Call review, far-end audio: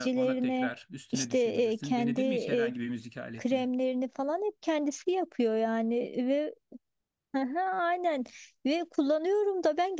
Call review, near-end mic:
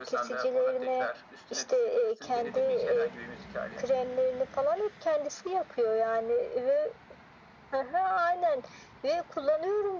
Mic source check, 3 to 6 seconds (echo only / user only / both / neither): echo only